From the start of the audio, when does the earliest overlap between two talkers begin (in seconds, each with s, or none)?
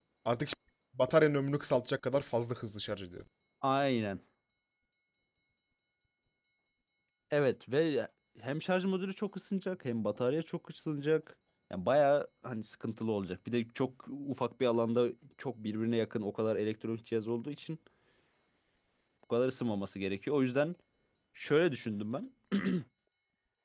none